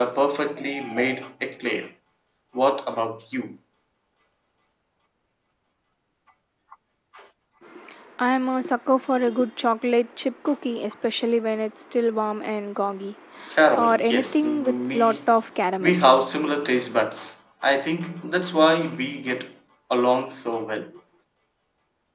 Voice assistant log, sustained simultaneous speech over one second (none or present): present